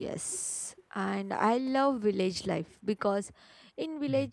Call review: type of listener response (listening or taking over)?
listening